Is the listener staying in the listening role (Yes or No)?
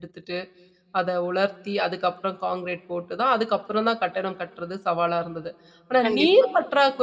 Yes